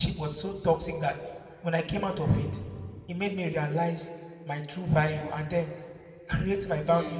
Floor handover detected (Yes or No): No